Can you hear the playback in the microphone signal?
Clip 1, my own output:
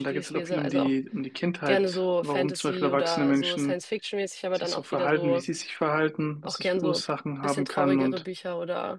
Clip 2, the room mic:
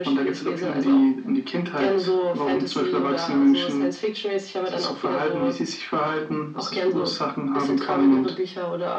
Yes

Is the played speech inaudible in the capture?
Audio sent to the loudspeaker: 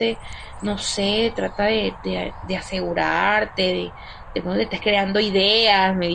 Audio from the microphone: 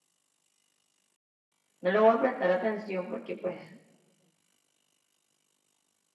Yes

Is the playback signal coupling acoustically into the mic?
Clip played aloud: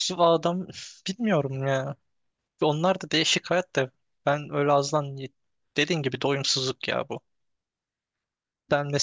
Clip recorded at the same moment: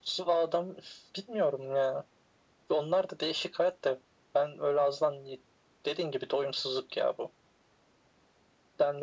Yes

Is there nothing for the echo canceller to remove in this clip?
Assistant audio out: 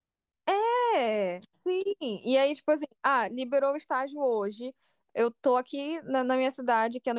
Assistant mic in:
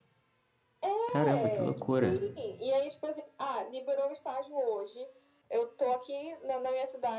No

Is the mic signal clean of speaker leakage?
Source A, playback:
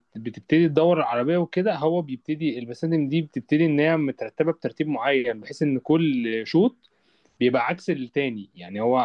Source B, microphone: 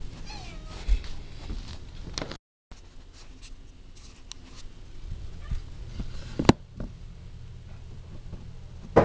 Yes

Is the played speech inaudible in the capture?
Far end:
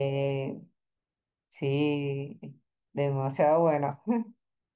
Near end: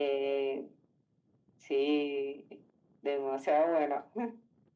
No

